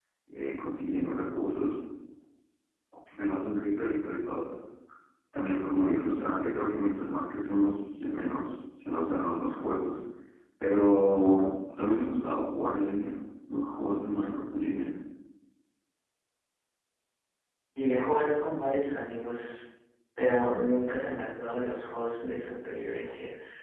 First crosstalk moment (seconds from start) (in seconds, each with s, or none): none